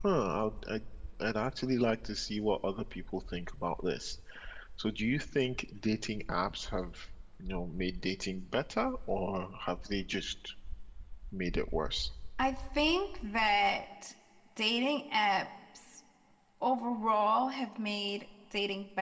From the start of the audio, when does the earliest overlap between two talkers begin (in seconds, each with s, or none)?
none